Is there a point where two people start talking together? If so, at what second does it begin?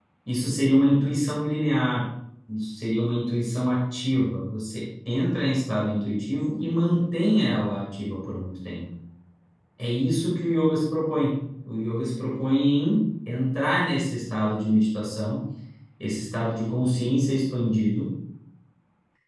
none

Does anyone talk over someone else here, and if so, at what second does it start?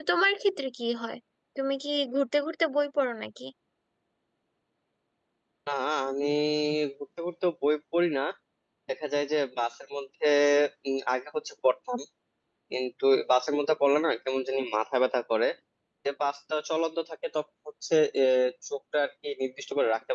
none

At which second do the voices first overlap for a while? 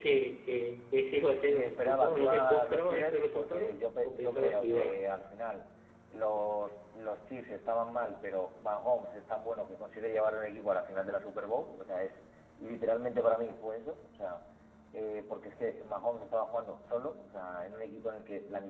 1.5 s

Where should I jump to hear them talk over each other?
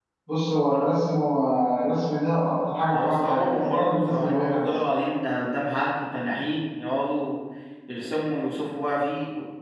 2.9 s

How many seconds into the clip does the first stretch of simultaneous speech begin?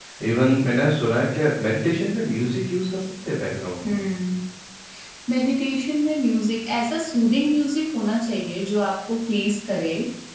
none

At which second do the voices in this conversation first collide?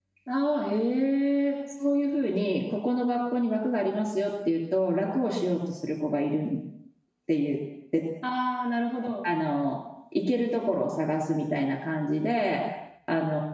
none

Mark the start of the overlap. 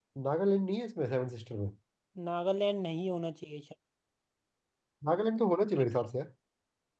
none

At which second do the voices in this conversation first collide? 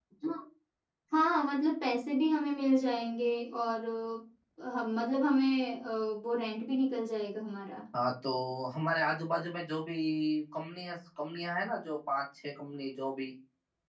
none

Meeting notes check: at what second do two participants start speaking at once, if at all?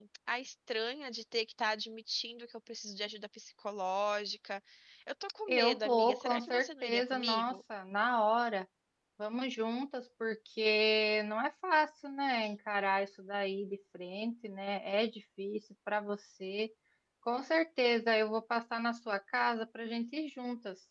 5.5 s

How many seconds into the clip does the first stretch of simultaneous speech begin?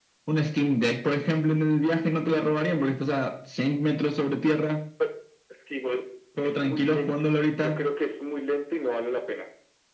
6.4 s

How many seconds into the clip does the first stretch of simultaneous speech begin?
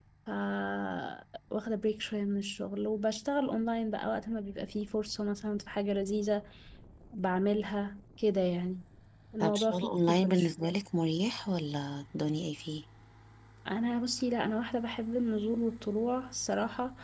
9.4 s

